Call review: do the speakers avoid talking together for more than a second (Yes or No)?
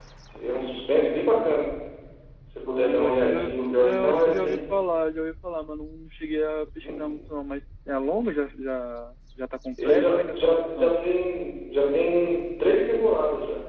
No